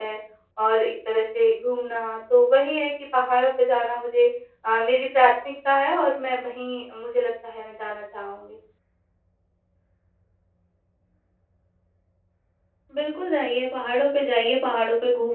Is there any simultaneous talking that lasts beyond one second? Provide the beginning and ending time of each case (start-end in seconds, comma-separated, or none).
none